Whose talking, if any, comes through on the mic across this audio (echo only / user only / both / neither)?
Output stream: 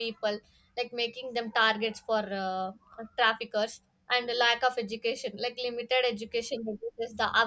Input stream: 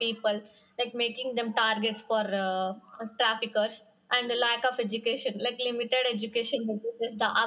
echo only